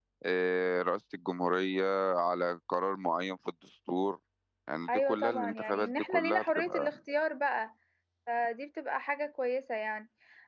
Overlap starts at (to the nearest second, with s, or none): 5 s